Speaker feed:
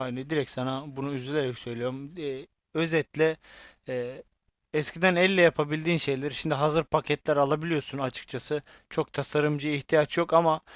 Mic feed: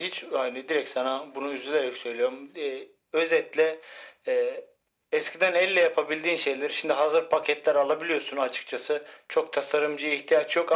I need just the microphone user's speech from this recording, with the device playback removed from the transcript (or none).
none